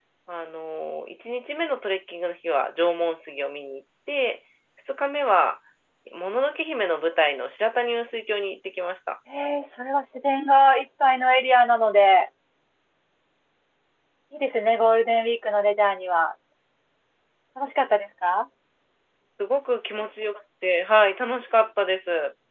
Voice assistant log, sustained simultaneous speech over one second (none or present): none